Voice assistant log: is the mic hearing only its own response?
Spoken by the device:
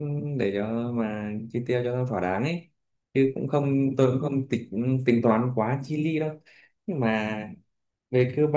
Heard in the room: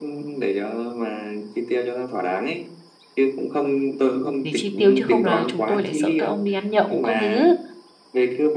No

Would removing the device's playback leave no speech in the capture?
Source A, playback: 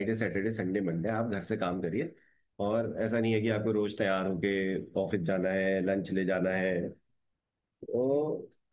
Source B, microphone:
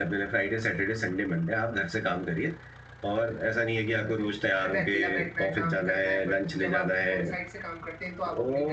No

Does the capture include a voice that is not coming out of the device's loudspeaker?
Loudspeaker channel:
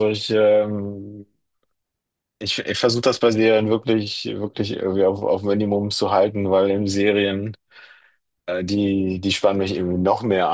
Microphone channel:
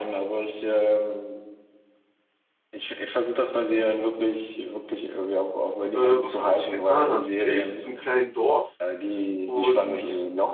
Yes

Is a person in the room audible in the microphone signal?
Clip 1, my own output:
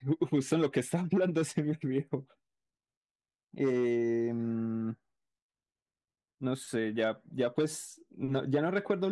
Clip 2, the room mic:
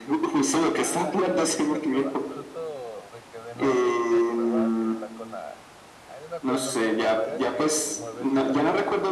Yes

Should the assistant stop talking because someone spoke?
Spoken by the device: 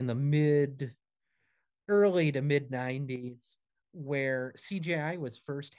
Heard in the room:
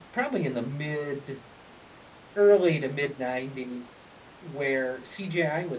No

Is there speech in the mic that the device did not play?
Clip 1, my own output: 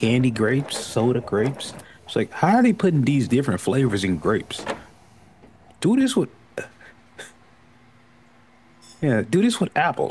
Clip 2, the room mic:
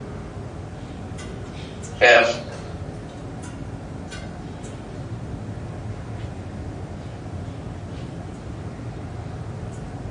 Yes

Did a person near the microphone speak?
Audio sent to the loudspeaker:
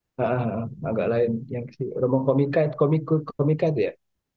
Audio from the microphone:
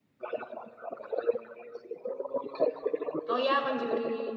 Yes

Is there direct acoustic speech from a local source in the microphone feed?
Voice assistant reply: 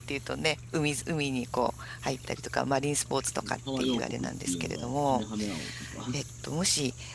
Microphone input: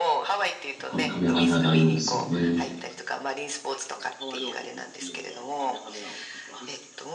Yes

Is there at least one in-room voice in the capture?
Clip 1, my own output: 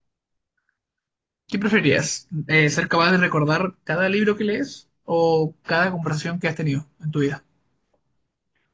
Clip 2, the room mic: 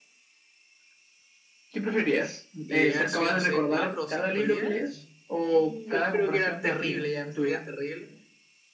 Yes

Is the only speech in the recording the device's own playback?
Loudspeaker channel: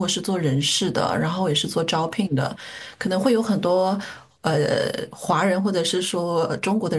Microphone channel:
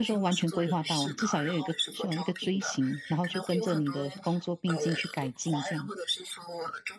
No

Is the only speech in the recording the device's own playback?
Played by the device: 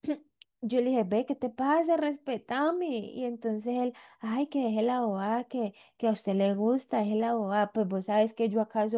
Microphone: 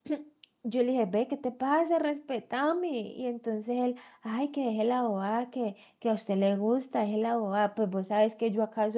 Yes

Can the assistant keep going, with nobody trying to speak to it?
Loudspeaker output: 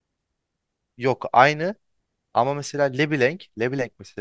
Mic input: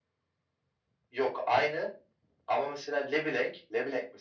Yes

